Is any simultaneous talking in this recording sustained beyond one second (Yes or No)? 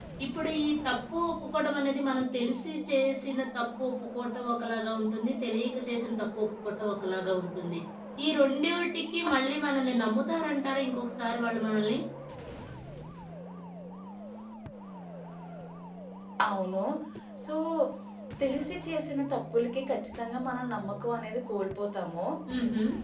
No